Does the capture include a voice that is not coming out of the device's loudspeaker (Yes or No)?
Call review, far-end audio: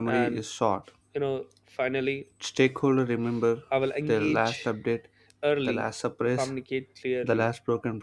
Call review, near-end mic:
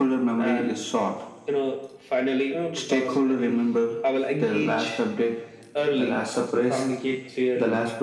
Yes